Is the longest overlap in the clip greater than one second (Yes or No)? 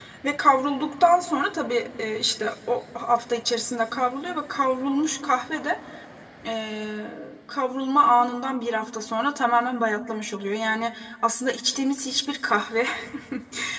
No